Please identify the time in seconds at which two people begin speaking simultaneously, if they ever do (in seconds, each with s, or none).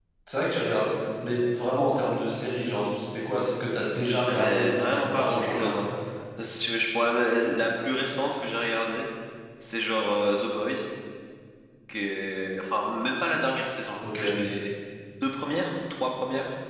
4.3 s